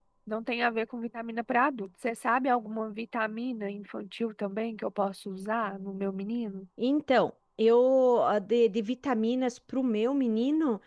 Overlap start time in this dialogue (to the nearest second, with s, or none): none